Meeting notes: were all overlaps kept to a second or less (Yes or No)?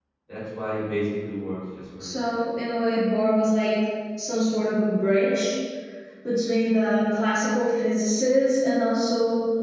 Yes